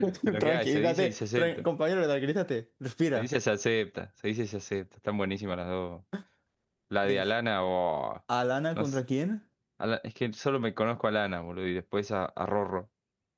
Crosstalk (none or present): present